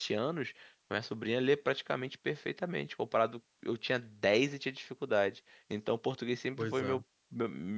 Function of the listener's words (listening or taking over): listening